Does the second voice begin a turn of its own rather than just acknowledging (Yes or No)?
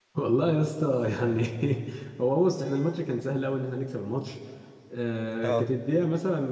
No